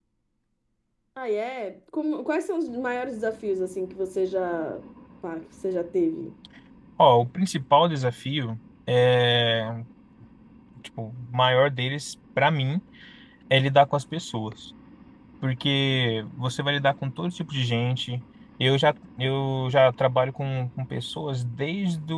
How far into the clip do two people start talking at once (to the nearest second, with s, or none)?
none